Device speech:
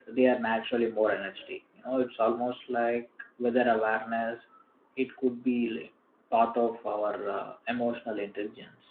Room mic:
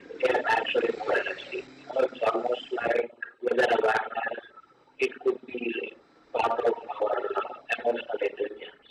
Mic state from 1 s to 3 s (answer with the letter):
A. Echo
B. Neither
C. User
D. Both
A